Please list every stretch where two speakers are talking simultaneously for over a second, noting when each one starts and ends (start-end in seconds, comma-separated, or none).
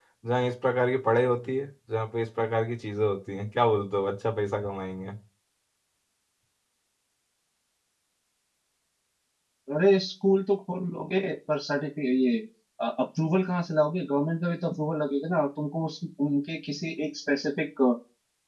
none